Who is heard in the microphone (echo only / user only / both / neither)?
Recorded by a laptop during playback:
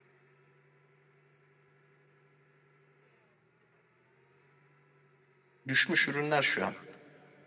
user only